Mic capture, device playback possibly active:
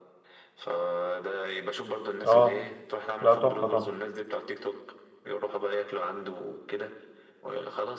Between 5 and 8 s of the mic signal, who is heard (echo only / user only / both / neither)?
echo only